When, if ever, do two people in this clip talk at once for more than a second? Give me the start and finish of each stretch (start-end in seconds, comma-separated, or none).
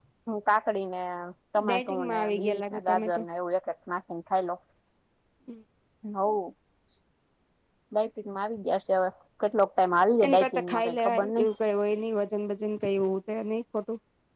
1.6-3.2, 10.2-11.5